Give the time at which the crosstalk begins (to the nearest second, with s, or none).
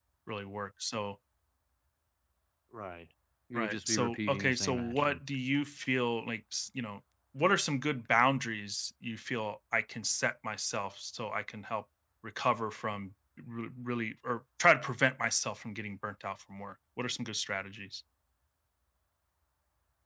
4 s